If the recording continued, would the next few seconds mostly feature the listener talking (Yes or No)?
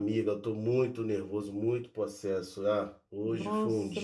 Yes